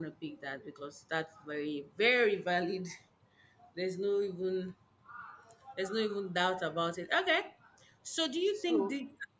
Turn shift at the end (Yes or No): No